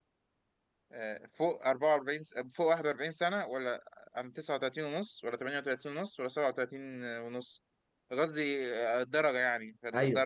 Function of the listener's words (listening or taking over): taking over